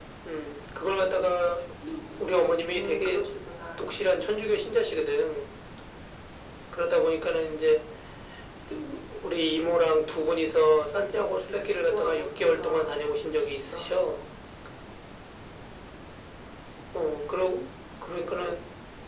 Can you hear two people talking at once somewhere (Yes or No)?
Yes